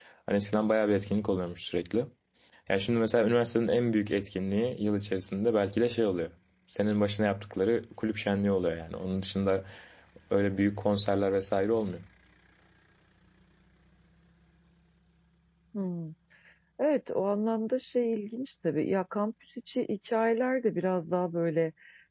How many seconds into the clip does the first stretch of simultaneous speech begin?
none

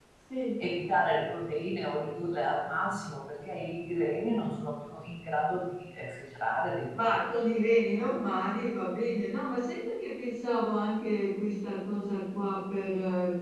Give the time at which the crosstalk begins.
none

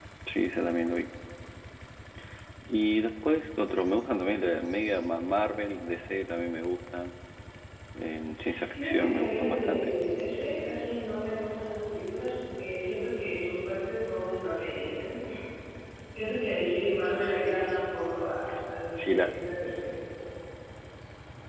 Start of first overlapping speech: 8.7 s

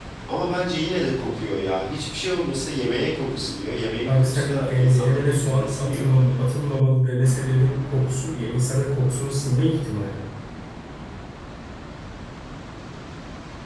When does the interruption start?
4.1 s

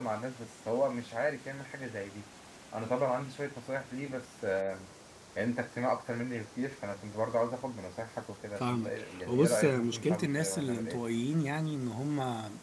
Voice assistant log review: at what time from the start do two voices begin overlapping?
8.6 s

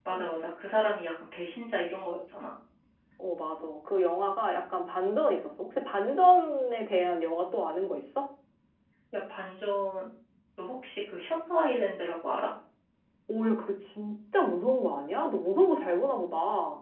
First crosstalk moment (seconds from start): none

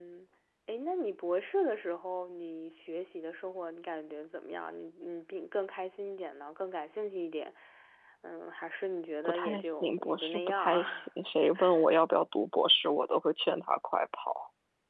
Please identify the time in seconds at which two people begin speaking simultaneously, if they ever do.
9.2 s

